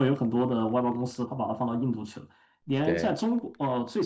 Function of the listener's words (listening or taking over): listening